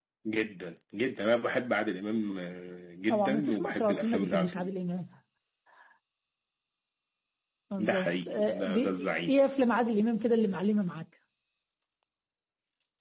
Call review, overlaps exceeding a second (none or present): present